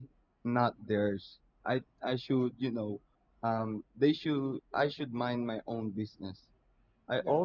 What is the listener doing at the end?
taking over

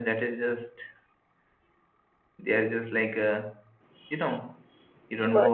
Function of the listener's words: listening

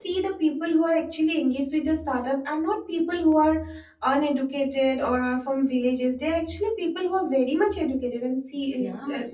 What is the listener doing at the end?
listening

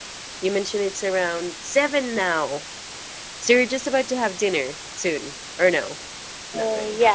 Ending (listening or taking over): taking over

